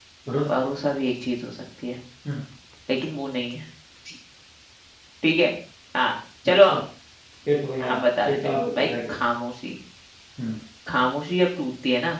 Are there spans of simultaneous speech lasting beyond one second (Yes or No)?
Yes